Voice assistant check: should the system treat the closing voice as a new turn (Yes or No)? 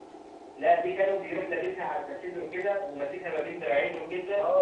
Yes